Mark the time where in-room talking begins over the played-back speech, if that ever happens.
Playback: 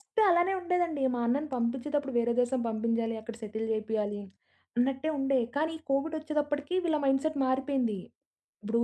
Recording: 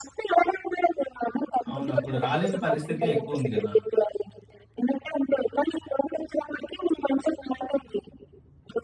1.7 s

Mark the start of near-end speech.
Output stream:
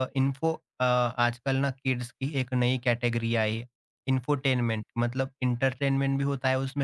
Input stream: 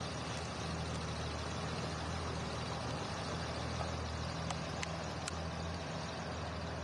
none

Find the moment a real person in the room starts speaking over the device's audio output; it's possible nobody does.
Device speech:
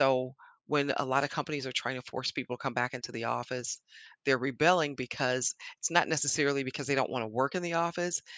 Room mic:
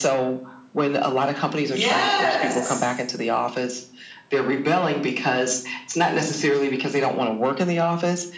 1.6 s

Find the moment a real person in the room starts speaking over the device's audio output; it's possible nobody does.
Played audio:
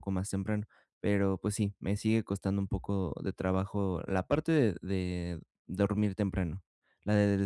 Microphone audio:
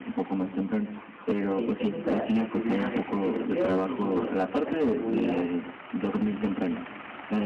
1.5 s

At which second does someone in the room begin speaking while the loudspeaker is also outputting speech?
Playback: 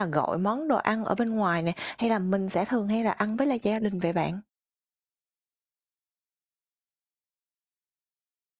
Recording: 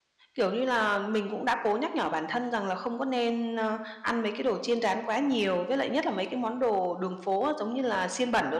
0.3 s

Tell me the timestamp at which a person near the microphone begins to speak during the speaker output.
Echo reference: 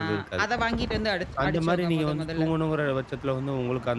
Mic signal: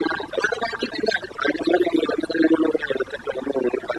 none

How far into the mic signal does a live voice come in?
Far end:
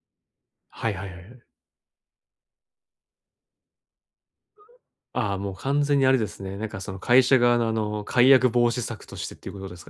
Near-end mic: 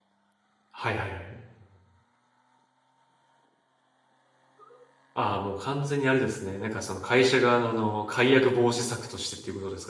none

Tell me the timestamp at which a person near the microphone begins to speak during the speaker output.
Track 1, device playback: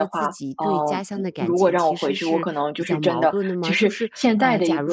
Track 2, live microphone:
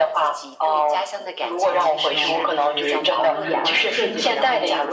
1.6 s

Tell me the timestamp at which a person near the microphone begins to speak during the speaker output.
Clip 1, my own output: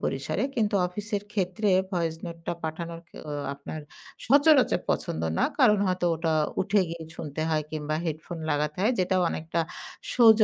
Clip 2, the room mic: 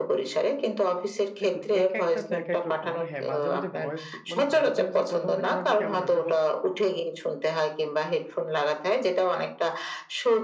1.4 s

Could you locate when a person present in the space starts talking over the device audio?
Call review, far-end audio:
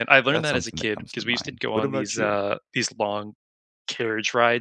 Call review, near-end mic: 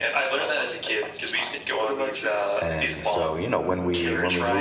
2.6 s

